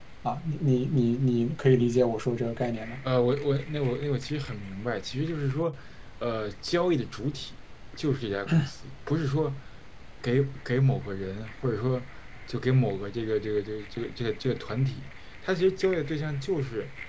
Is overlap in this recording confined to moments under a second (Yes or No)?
Yes